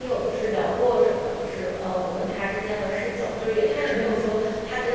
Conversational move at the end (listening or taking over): listening